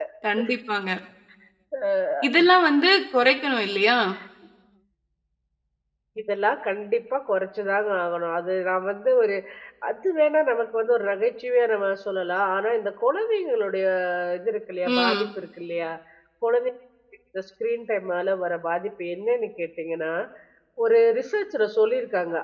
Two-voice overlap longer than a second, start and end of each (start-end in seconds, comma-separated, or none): none